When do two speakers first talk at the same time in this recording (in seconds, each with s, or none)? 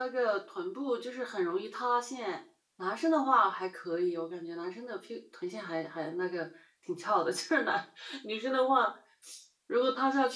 none